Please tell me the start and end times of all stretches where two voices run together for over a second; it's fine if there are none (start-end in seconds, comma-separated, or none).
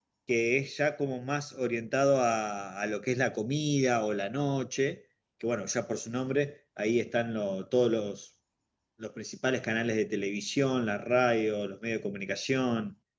none